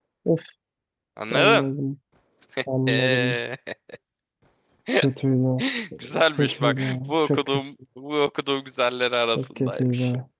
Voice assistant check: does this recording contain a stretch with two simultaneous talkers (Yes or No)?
Yes